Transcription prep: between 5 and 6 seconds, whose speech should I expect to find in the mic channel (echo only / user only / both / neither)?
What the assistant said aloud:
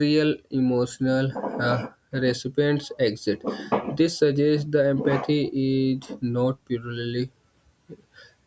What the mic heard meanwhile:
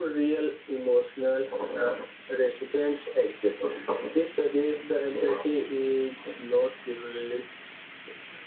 echo only